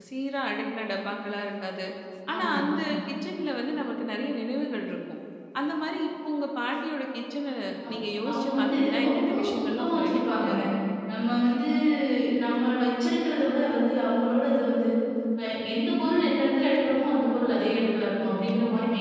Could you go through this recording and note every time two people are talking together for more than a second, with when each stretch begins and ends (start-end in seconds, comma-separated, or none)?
8.3-10.6